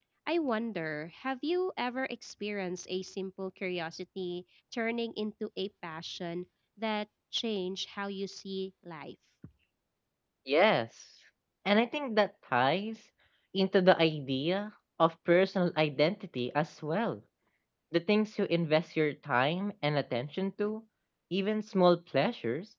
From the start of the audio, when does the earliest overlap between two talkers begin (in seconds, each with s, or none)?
none